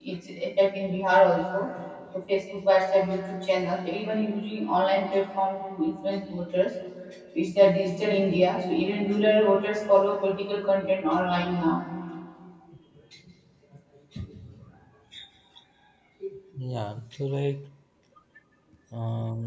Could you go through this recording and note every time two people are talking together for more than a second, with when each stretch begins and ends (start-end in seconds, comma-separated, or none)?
none